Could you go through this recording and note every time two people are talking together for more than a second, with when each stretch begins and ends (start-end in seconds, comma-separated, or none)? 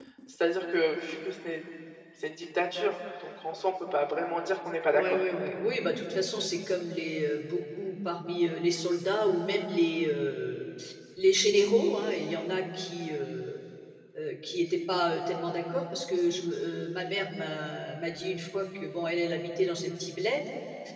none